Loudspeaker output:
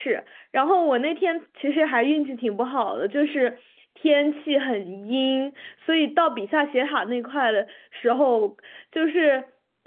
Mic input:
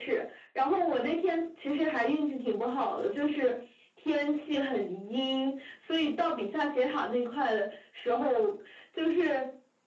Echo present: Yes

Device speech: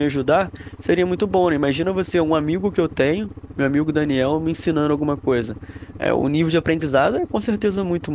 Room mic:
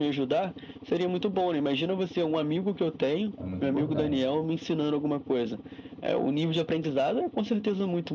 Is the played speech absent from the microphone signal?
No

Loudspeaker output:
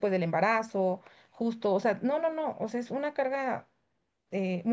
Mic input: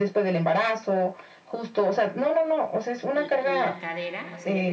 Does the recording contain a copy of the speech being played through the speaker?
Yes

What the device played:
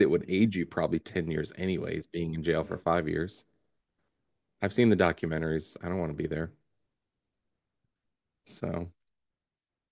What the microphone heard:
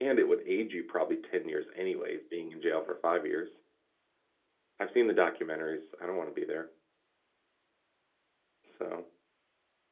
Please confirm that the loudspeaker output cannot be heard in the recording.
No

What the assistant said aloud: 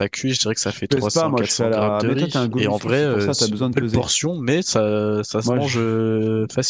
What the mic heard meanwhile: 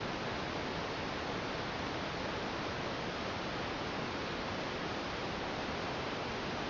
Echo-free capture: Yes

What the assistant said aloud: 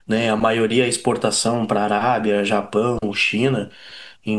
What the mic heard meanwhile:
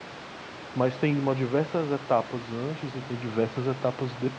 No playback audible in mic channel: Yes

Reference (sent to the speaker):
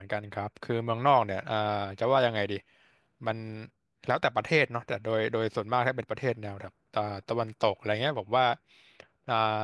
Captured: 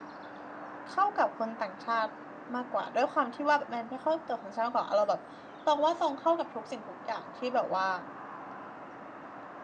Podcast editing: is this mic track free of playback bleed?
Yes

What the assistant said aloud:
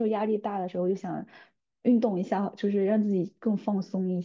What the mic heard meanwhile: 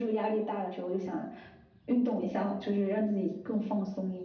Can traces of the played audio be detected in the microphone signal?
Yes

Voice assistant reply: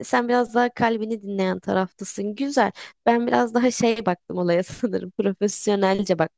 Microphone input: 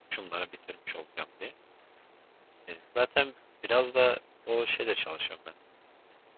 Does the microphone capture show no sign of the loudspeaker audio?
Yes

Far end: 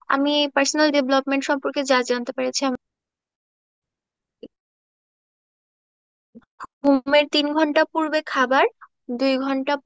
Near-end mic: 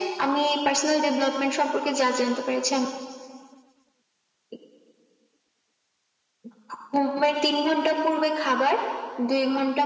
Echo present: Yes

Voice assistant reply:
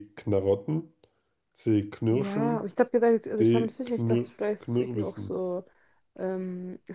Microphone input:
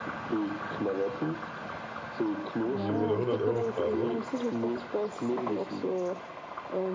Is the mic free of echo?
No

